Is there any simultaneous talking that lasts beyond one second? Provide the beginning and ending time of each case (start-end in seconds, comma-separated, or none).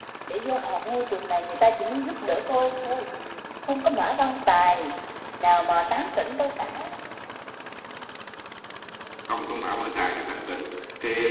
none